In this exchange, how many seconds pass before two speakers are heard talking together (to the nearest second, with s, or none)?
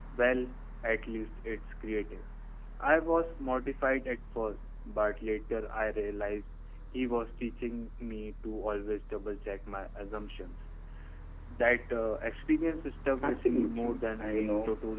13 s